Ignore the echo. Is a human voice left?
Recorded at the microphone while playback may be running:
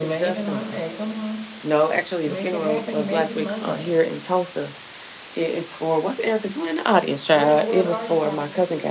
Yes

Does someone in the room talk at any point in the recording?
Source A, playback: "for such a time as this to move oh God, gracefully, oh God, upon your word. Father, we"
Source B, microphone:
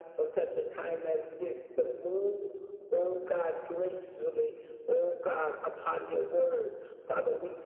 No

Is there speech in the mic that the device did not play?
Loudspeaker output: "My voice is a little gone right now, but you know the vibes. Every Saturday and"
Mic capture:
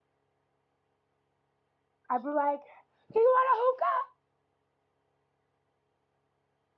Yes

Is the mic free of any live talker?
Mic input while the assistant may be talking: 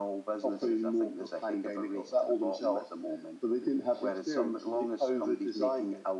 Yes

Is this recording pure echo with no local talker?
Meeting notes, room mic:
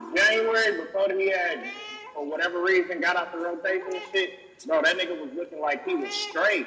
Yes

